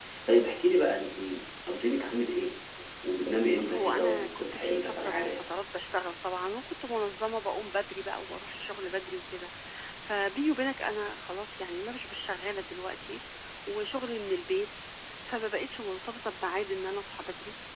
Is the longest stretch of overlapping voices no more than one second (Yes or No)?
No